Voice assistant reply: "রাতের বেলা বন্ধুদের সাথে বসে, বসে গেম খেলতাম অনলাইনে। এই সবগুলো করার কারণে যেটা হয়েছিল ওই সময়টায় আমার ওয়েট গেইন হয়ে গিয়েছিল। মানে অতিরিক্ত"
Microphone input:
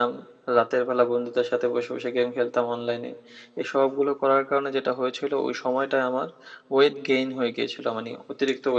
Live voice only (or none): none